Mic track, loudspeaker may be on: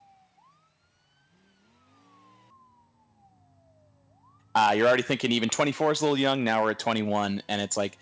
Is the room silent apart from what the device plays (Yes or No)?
No